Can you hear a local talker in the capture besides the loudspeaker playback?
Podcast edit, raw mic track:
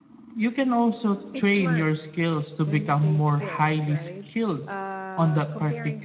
Yes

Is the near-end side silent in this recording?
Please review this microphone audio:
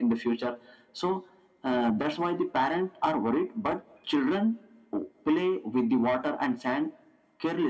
Yes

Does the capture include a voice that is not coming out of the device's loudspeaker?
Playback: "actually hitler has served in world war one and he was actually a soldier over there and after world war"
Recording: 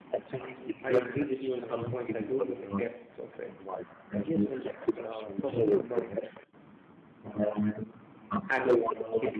Yes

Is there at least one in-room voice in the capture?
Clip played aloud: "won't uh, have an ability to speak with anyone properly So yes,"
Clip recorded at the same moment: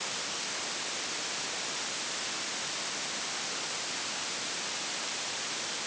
No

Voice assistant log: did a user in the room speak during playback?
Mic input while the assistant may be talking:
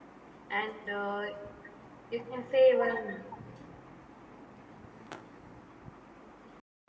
Yes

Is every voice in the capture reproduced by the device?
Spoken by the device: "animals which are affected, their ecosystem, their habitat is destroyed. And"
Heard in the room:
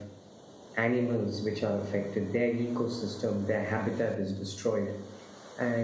Yes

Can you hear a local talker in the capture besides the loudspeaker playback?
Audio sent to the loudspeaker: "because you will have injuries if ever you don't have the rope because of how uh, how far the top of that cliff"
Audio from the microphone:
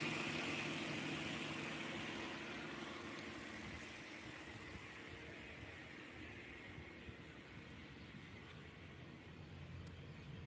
No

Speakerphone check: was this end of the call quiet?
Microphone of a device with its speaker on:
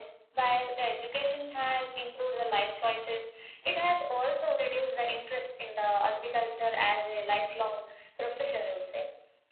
Yes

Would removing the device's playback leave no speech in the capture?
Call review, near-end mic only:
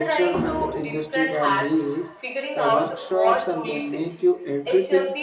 No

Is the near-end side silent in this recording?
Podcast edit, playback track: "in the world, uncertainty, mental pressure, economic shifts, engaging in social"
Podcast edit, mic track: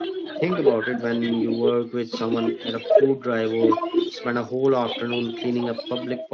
No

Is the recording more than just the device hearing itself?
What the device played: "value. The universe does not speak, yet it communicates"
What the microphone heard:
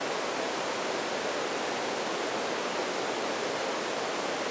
No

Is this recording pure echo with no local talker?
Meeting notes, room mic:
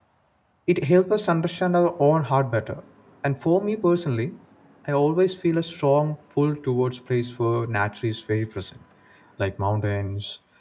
No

